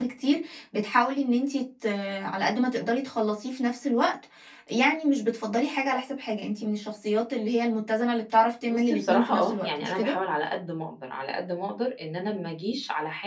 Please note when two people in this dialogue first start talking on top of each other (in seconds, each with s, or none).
8.7 s